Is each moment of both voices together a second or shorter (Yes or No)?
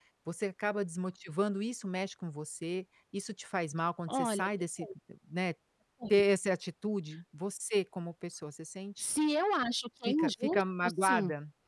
No